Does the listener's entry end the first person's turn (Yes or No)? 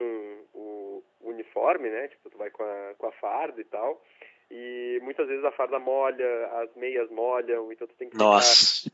No